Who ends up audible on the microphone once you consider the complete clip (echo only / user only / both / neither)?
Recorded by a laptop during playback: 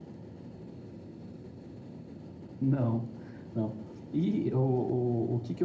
user only